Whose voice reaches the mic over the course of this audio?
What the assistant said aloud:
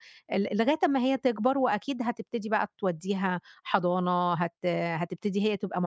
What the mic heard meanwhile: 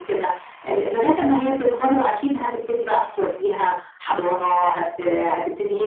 echo only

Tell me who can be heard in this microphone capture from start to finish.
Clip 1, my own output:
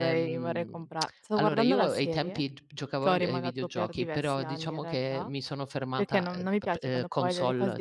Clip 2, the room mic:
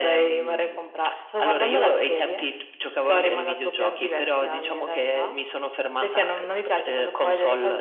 echo only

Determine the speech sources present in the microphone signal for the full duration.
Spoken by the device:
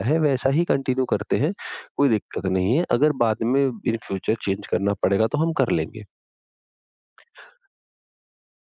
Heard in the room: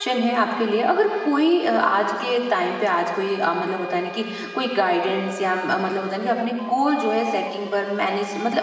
user only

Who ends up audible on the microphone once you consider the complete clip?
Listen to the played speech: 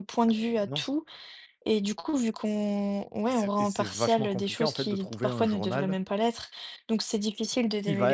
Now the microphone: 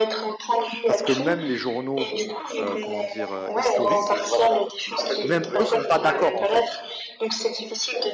both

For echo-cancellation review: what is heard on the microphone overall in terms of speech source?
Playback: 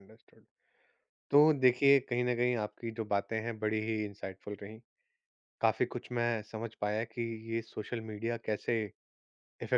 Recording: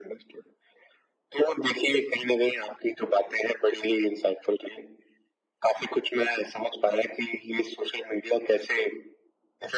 echo only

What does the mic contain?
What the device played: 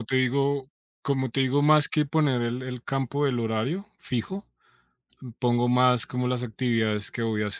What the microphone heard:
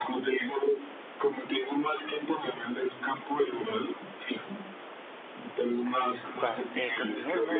both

